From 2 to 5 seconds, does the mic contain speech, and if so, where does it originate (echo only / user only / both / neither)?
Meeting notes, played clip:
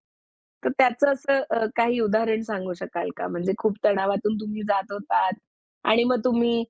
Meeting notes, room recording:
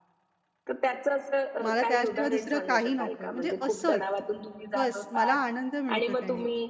both